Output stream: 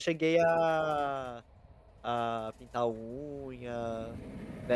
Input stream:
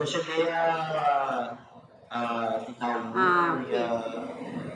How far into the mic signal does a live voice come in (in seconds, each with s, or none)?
3.1 s